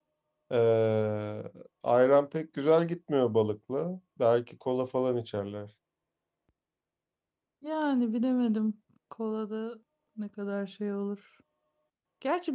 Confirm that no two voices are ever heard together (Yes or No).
Yes